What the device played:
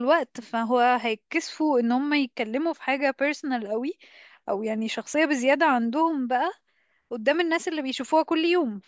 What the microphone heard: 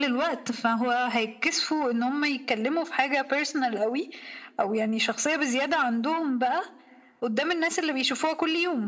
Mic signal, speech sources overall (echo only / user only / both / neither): echo only